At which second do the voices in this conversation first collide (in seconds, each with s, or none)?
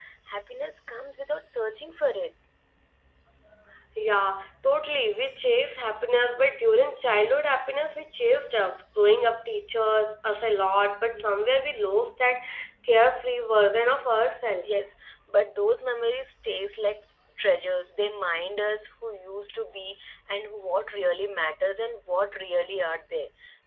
none